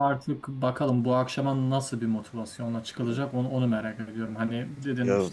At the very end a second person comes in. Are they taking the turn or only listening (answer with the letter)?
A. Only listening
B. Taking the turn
A